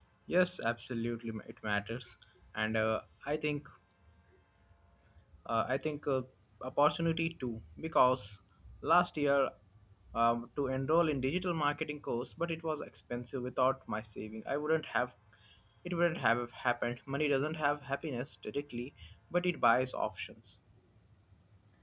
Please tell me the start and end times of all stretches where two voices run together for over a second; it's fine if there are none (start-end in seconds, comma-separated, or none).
none